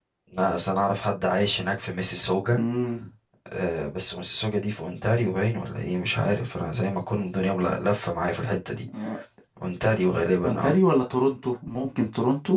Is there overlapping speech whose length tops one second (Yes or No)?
No